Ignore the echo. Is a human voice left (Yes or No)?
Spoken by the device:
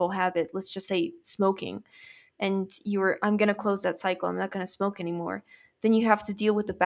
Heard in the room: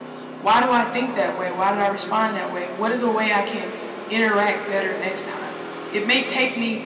Yes